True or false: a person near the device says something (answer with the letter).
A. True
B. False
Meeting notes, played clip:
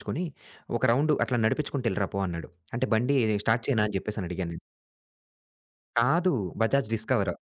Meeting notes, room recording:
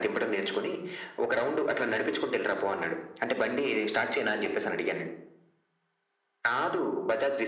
B